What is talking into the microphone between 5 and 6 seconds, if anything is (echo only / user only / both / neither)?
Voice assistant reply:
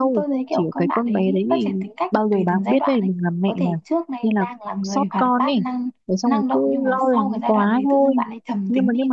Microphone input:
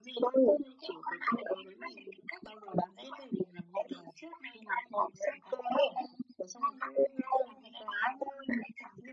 echo only